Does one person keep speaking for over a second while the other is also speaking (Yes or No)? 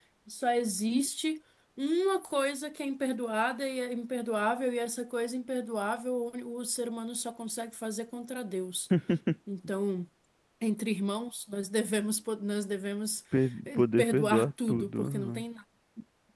Yes